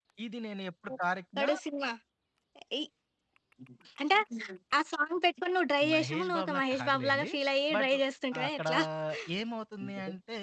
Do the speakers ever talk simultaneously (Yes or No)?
Yes